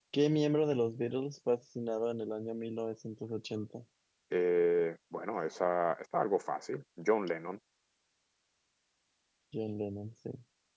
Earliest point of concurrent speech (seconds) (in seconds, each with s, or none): none